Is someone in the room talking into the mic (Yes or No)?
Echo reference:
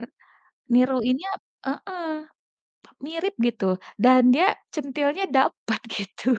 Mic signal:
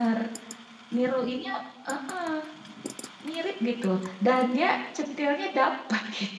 No